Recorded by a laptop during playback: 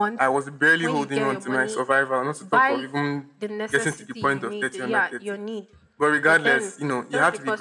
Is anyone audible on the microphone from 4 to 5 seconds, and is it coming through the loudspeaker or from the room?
echo only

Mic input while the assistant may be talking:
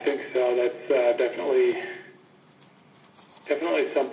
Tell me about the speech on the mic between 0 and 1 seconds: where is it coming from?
echo only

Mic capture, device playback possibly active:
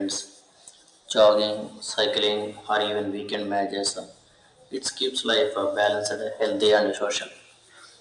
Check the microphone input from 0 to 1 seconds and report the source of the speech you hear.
echo only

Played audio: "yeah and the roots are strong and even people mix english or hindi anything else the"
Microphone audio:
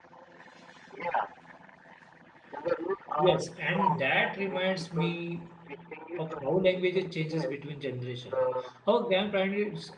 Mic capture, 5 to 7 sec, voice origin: both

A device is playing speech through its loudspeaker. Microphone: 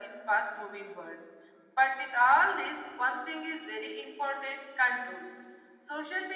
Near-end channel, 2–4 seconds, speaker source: echo only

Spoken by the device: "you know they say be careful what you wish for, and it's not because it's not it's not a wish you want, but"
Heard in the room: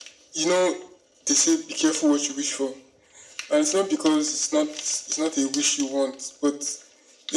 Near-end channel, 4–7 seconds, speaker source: echo only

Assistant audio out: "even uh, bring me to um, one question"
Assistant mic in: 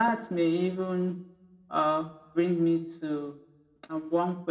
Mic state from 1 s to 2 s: echo only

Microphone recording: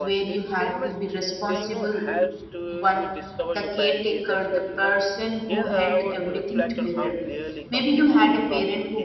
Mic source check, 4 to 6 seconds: both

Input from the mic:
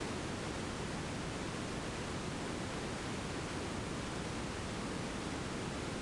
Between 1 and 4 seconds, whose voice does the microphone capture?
neither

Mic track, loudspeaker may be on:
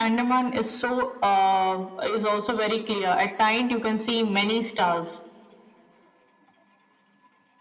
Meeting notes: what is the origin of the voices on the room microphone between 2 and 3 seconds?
echo only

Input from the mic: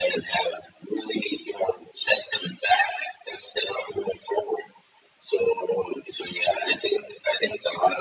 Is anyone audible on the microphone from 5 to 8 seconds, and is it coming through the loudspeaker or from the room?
echo only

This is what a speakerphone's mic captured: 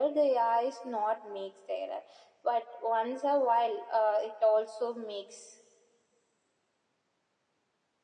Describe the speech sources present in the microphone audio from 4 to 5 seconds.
echo only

